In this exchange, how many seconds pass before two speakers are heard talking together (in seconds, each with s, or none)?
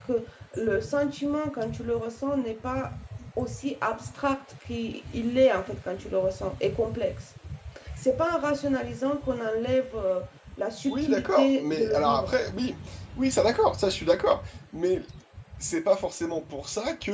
10.9 s